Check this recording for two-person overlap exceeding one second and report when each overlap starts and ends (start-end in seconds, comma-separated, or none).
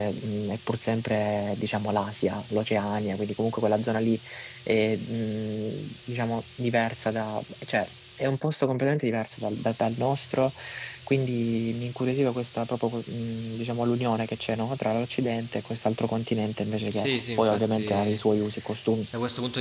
16.9-18.2